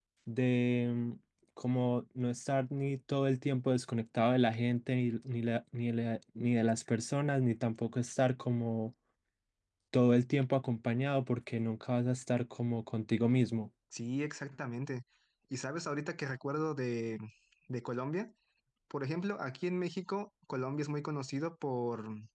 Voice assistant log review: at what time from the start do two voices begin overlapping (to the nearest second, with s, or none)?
none